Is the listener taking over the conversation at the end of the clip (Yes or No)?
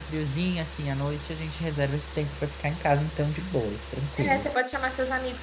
Yes